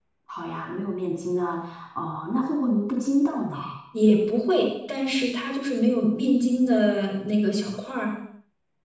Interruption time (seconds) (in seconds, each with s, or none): none